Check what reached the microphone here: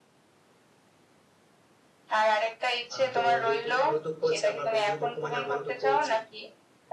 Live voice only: আহ, তো যেহেতু ওর দুঃখ হচ্ছে আমার বন্ধুর দুঃখ মানে আমারও দুঃখ হচ্ছে

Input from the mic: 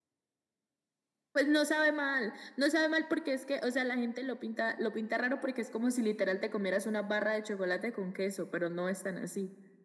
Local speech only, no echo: none

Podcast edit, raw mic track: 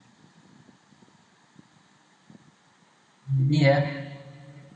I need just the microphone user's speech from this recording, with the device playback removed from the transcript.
ये भी है

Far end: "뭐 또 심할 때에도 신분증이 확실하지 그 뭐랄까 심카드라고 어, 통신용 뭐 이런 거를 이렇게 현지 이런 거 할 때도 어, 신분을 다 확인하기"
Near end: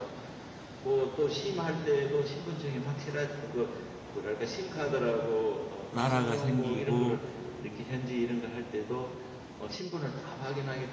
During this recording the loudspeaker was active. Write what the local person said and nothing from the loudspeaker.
나라가 생기고

